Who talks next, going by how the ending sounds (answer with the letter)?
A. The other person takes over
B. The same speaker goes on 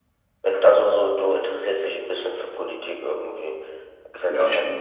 B